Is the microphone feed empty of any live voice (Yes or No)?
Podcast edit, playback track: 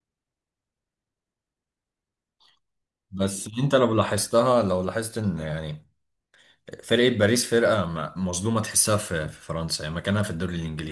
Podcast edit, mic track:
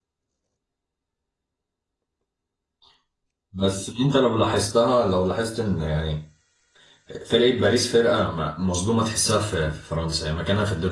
Yes